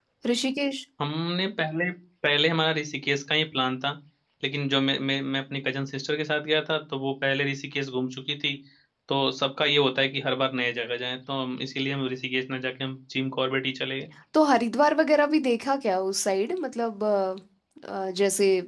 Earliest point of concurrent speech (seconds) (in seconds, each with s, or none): none